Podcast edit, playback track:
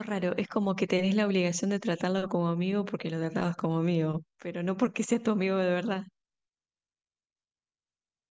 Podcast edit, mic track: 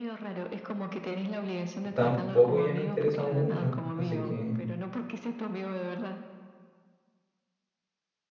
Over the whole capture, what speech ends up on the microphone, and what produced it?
both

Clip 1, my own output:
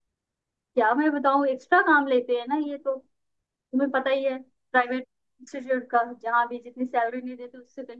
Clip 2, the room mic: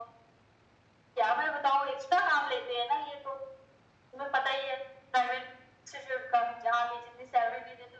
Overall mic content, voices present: echo only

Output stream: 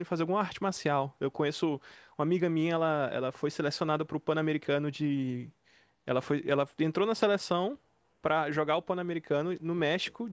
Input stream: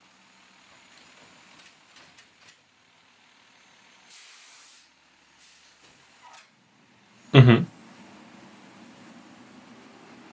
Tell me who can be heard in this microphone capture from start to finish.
user only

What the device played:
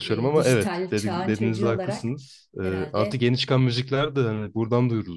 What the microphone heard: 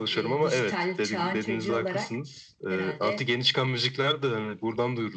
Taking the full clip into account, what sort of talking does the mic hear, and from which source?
echo only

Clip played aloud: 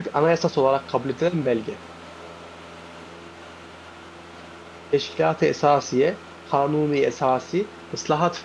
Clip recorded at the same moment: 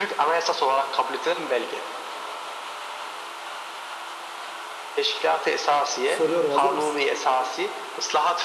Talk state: both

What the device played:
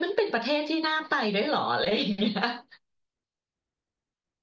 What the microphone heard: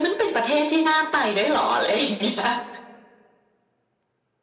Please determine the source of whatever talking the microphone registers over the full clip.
echo only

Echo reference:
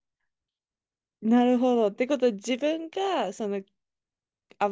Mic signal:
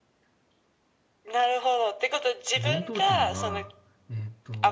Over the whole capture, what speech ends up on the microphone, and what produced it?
both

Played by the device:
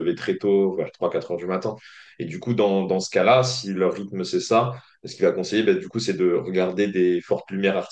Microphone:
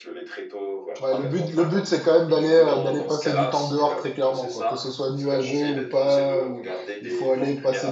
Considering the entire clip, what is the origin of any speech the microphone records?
both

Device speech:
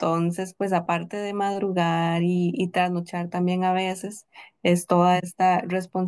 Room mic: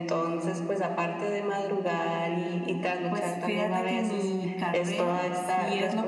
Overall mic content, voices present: both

